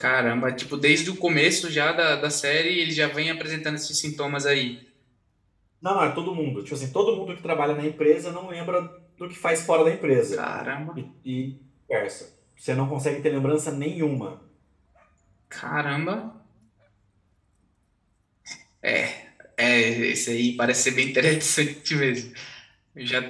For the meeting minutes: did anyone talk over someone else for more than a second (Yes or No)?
No